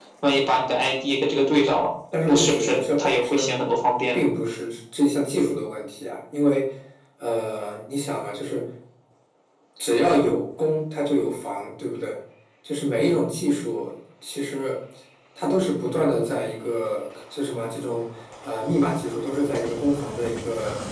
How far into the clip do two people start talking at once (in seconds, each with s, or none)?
2.1 s